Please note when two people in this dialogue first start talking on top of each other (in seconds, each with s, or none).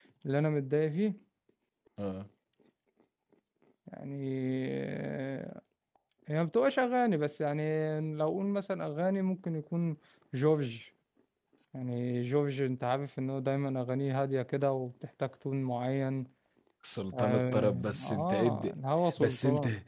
17.1 s